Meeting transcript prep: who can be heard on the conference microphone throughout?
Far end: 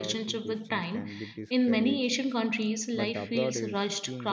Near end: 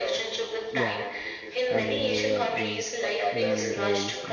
both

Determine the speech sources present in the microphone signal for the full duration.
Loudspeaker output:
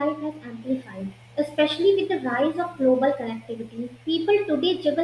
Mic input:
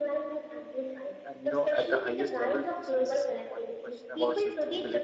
both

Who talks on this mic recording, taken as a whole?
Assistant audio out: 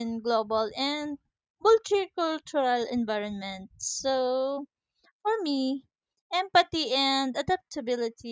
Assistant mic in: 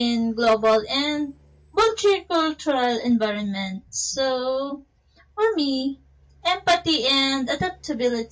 echo only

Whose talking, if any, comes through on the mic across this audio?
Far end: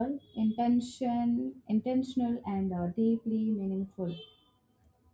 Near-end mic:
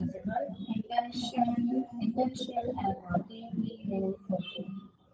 echo only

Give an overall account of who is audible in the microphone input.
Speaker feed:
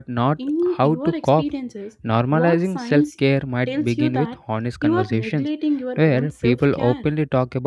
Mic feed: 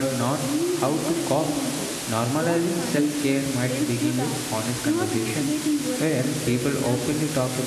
echo only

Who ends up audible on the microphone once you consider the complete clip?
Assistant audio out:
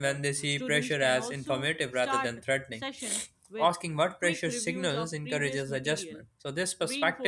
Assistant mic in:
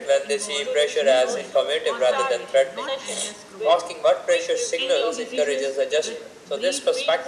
both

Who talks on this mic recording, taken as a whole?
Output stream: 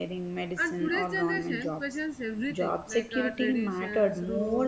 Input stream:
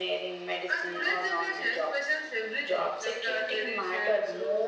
echo only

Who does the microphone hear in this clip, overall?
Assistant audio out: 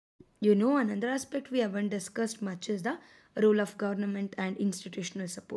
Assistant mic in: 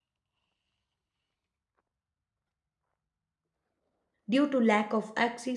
user only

